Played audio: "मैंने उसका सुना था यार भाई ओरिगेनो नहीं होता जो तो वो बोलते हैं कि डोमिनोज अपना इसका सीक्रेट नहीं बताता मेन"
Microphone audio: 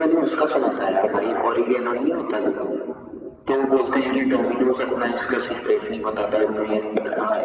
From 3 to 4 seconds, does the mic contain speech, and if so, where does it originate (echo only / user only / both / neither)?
echo only